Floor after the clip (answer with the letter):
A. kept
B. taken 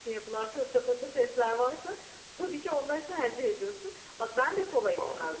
A